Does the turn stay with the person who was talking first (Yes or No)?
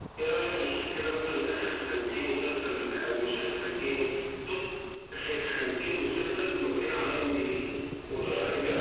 Yes